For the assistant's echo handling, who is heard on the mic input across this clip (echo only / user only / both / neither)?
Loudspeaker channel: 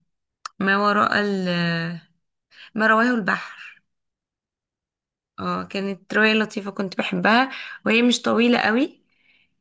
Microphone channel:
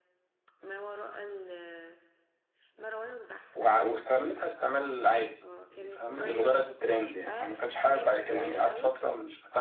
both